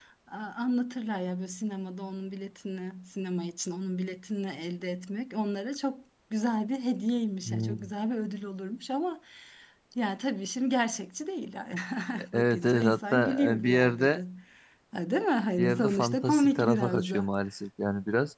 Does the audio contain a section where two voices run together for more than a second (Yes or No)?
Yes